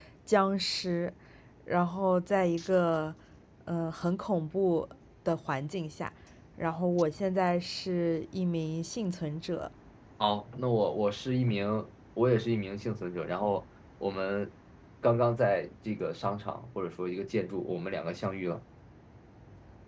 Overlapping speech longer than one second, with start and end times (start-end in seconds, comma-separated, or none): none